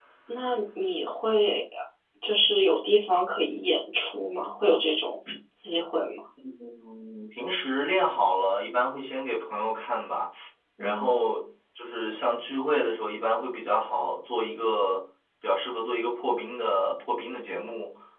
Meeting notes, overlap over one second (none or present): none